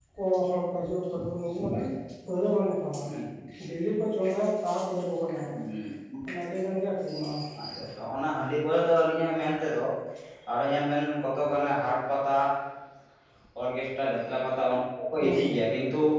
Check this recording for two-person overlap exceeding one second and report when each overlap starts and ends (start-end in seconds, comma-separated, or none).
none